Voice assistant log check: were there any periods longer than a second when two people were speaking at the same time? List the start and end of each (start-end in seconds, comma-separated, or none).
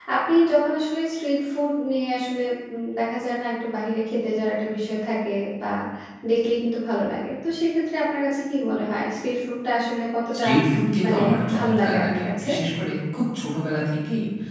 11.0-12.5